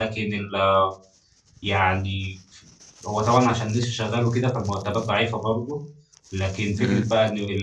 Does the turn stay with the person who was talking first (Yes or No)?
Yes